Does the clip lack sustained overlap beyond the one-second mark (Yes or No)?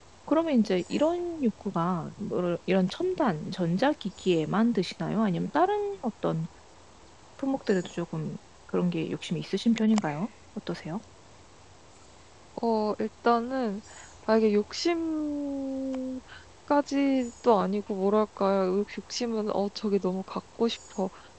Yes